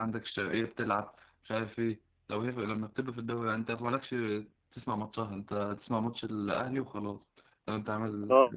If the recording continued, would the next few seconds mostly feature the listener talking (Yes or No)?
Yes